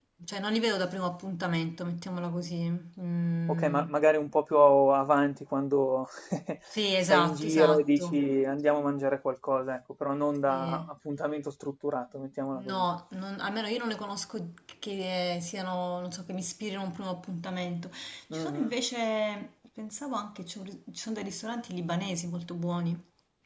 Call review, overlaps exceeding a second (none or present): present